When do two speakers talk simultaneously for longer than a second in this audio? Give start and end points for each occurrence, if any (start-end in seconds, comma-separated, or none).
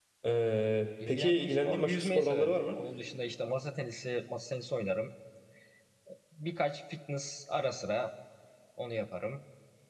1.1-2.8